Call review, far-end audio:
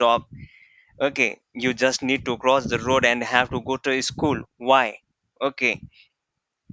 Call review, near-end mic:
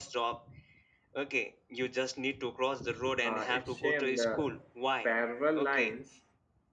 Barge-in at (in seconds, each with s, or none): 3.2 s